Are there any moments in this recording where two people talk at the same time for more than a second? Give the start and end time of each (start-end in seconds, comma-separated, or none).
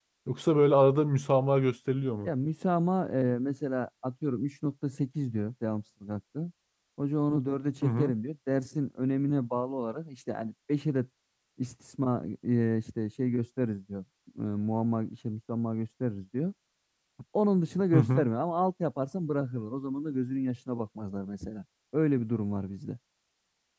none